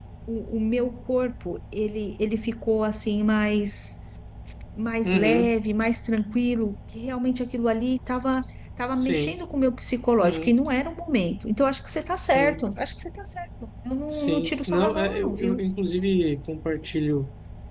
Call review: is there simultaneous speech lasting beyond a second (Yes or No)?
Yes